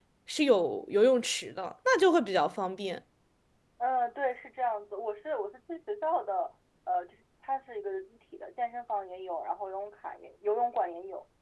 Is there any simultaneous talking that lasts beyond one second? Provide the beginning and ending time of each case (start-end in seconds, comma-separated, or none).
none